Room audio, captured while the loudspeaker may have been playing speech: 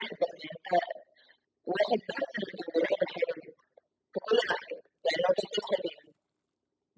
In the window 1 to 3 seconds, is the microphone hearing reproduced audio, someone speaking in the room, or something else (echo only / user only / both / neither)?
echo only